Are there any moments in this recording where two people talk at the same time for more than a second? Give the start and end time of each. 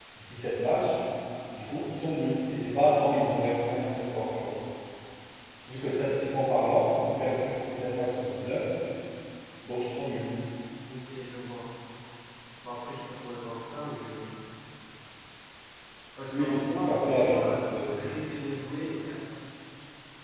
16.3-17.9

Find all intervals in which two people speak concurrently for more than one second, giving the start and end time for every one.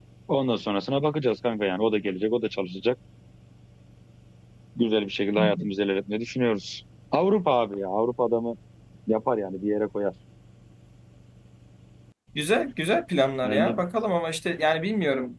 none

